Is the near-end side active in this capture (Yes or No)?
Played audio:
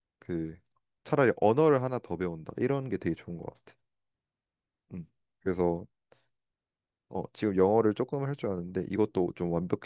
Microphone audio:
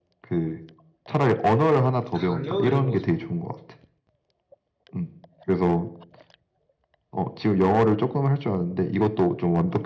Yes